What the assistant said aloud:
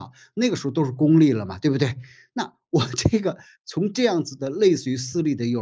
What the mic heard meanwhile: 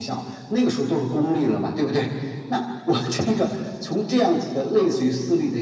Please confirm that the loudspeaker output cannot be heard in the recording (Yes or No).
No